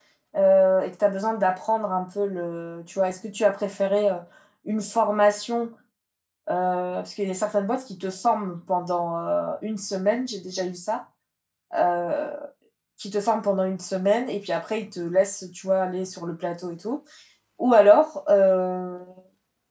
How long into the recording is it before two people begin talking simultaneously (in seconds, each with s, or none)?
none